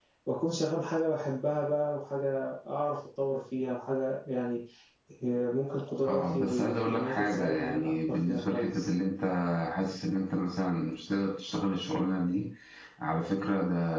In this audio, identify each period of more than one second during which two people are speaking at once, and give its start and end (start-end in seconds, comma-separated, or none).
6.0-8.9